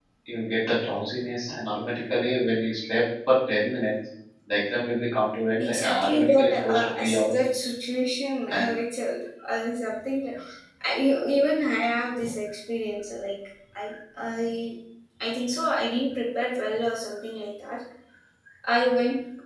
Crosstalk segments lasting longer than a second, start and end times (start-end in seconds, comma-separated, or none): 5.6-7.4